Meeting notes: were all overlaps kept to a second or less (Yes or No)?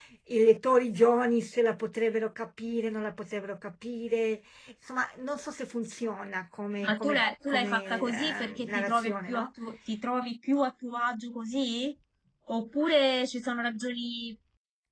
No